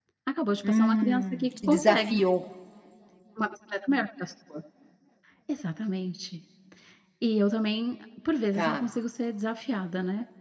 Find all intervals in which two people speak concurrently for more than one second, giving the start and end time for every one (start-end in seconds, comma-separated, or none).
0.6-2.2